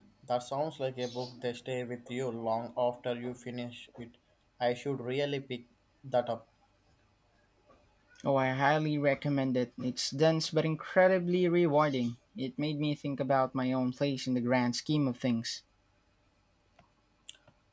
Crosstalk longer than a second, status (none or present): none